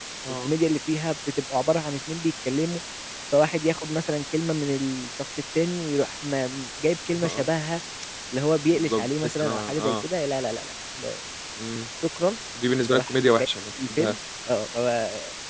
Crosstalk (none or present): present